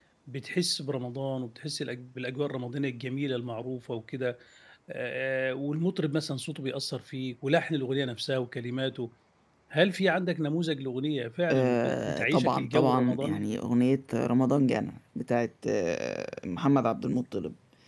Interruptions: present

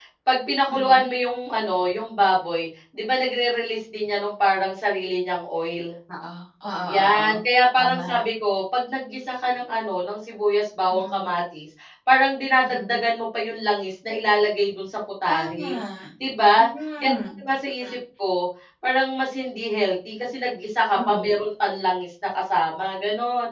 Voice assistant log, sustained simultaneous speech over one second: none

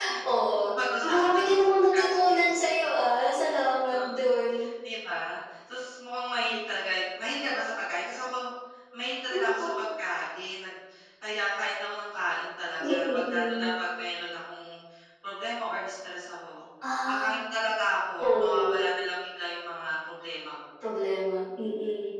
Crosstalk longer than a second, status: present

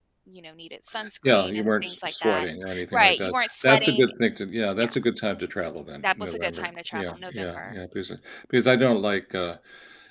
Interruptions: present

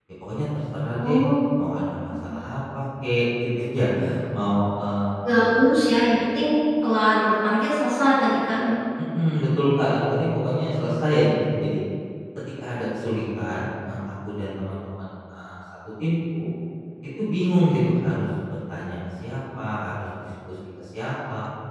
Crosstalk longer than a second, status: none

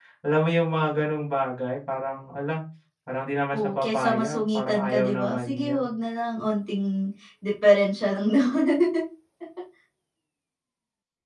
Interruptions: present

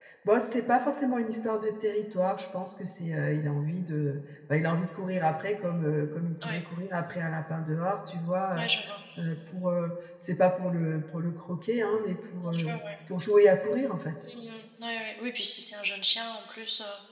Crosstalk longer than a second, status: none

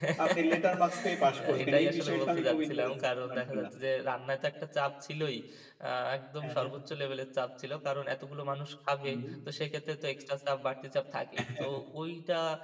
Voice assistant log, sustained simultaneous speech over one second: present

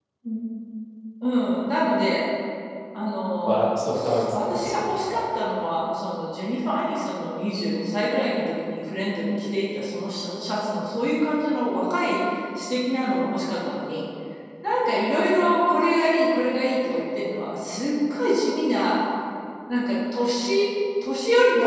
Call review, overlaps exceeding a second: present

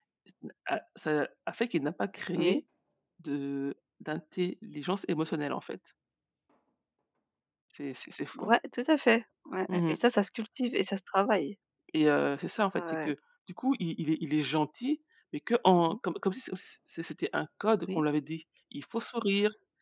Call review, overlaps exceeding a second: none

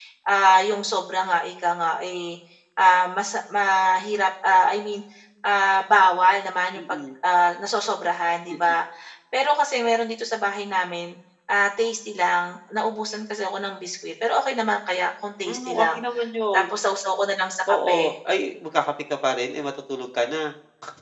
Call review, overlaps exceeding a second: none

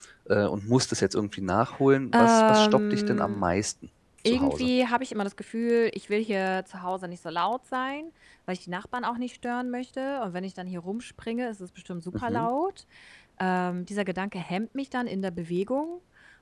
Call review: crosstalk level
present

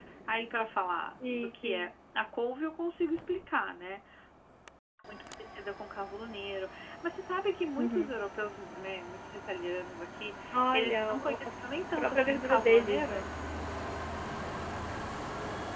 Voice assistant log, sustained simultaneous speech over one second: present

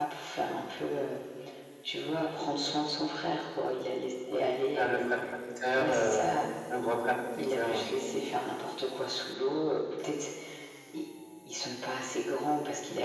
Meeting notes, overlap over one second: none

